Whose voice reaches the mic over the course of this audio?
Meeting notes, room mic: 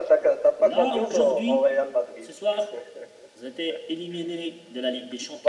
echo only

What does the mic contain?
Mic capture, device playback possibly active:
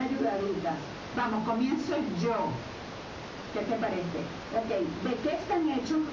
echo only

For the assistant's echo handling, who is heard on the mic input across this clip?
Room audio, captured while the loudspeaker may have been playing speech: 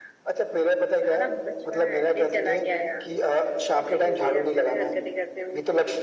both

